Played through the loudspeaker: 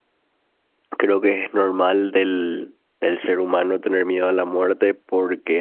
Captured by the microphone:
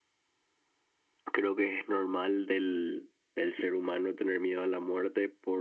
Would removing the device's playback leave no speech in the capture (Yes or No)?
Yes